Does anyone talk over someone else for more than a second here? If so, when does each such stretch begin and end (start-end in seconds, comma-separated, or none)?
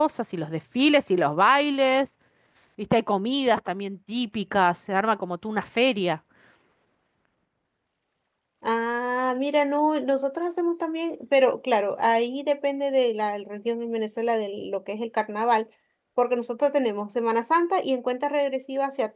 none